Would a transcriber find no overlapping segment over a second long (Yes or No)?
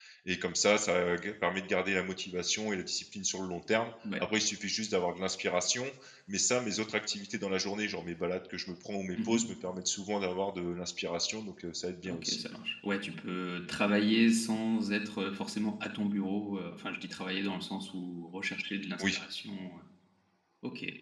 Yes